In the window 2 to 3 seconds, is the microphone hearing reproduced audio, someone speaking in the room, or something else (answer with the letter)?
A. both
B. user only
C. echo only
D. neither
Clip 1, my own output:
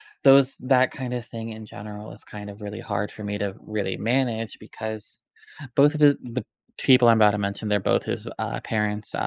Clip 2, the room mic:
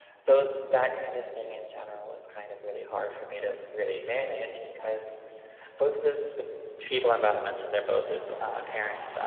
C